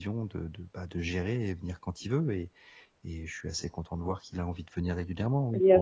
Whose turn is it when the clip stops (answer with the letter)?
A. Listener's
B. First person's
A